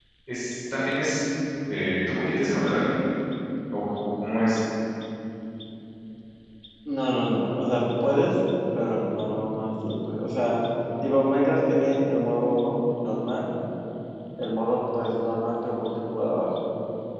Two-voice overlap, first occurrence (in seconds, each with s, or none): none